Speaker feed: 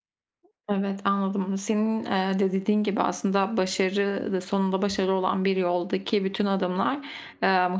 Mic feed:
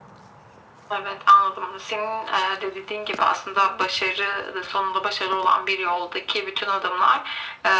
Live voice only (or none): none